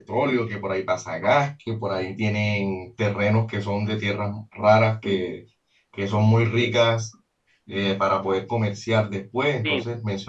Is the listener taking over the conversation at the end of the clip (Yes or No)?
Yes